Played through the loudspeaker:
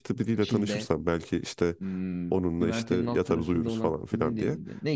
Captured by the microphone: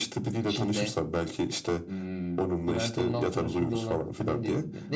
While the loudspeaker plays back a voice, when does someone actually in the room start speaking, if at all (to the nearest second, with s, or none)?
none